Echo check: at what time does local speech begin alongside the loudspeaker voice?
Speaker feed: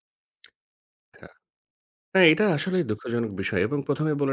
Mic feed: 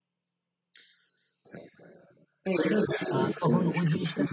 3.1 s

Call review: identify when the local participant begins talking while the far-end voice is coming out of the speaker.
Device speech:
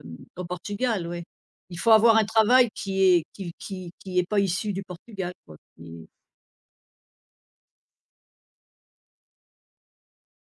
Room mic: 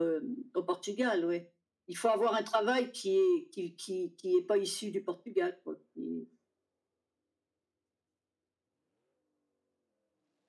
none

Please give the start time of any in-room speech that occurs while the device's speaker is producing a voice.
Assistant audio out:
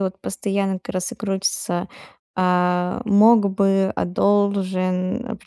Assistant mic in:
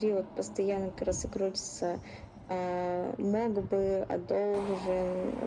none

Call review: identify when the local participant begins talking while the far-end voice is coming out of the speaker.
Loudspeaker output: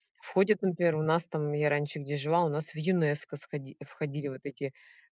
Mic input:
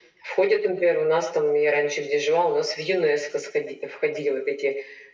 none

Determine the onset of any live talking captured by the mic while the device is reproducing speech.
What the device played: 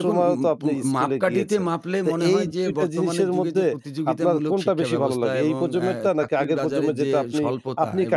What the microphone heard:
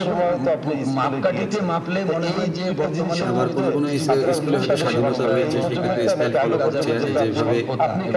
3.3 s

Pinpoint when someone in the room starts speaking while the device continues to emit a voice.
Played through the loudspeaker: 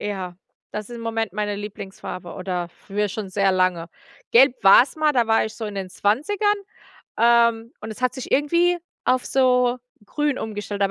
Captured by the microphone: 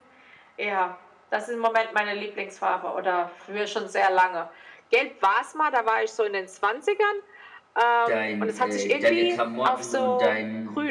8.0 s

